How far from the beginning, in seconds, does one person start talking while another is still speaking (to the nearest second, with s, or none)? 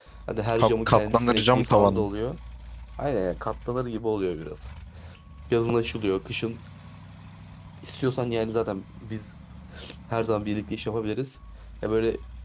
1 s